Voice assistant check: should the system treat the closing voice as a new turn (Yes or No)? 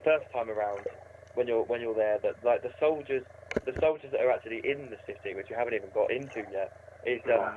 No